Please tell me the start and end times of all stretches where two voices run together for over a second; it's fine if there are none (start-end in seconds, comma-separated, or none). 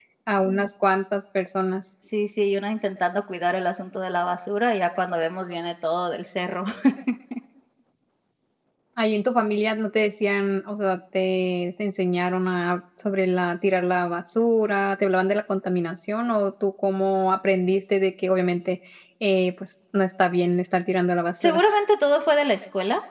none